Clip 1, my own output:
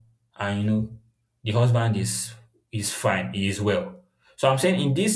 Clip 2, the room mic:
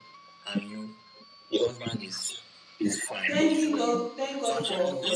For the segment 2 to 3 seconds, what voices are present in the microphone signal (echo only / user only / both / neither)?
echo only